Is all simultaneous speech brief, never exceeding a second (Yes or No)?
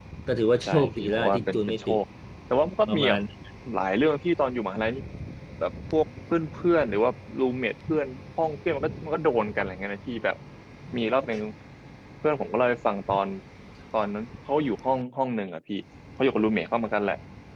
No